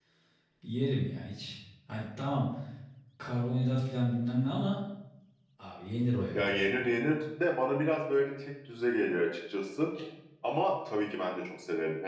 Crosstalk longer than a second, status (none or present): none